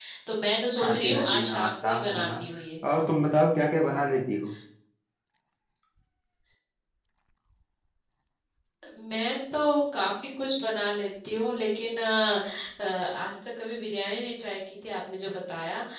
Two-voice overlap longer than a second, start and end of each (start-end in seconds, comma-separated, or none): 0.8-2.3